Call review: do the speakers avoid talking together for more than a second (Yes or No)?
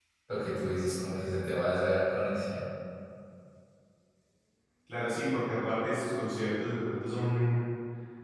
Yes